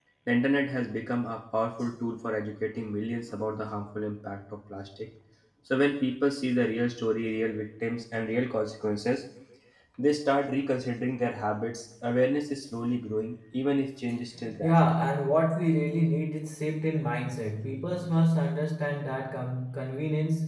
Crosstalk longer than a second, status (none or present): none